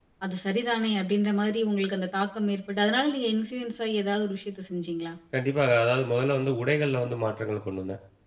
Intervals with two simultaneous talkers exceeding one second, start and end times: none

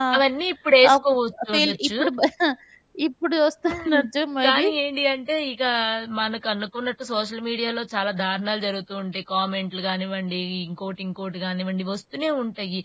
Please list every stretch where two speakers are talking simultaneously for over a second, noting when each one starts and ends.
none

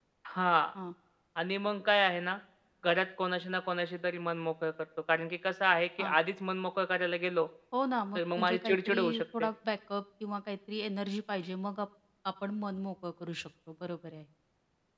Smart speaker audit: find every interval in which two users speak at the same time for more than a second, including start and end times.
8.2-9.5

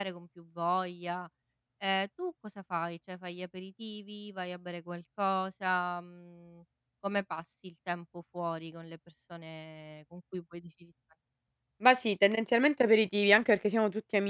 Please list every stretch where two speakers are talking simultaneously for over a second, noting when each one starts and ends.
none

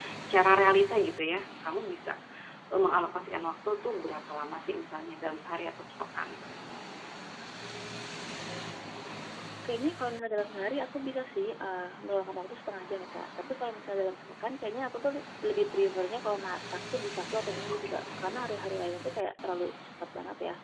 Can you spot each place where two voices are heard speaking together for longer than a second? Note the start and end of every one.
none

